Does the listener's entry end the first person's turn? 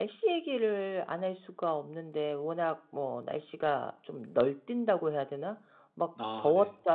No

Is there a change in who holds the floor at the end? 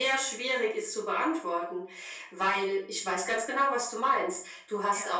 No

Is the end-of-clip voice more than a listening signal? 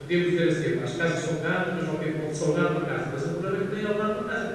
No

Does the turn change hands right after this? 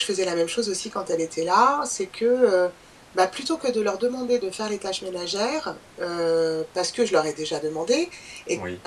No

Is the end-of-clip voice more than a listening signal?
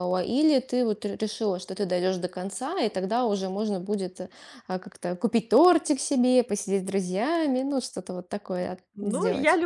Yes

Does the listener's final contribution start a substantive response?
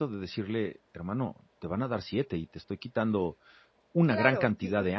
Yes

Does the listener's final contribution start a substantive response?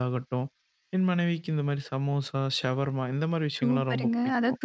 Yes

